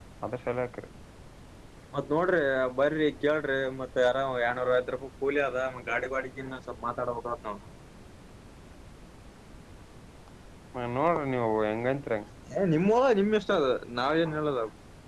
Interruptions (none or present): none